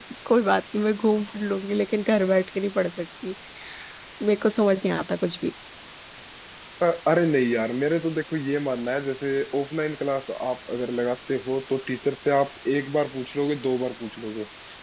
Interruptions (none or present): none